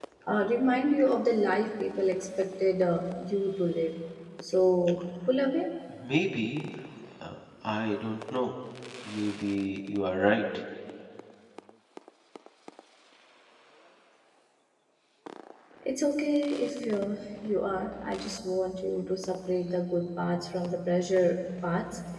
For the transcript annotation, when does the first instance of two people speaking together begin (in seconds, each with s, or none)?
none